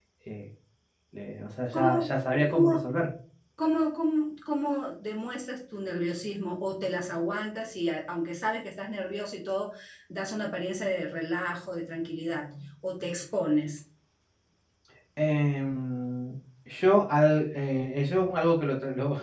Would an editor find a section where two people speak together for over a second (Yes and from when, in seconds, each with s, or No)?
Yes, from 1.7 s